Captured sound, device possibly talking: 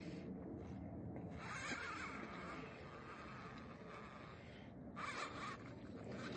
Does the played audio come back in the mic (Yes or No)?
No